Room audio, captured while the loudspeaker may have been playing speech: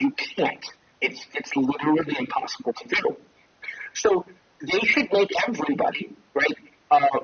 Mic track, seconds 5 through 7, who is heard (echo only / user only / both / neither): echo only